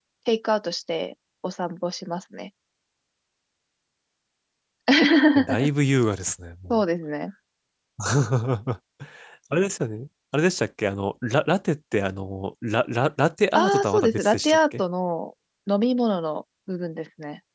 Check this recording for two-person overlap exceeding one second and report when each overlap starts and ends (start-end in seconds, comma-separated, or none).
13.5-14.8